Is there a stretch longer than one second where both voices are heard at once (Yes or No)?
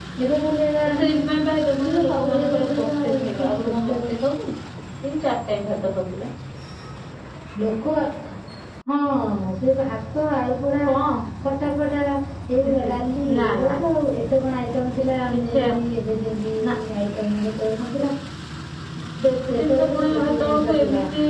Yes